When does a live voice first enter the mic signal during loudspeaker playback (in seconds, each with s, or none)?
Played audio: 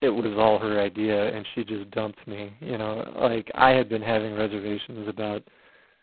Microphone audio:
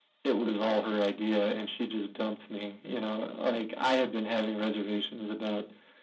none